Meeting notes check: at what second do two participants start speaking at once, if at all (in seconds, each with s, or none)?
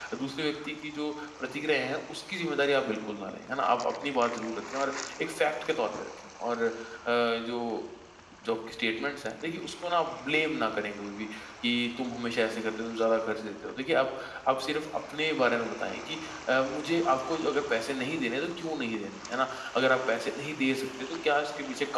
none